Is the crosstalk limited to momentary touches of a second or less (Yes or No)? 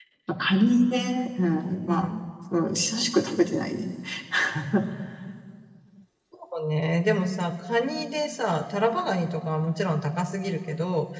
Yes